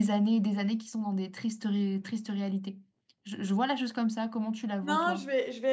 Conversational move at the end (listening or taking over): taking over